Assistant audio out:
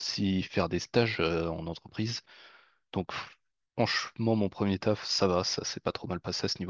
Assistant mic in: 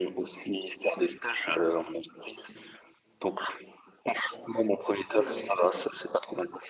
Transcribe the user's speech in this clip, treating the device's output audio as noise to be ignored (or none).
c'est vrai.